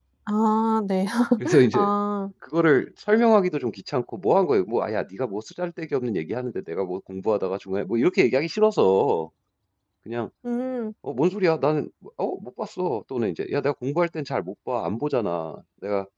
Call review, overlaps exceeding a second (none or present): none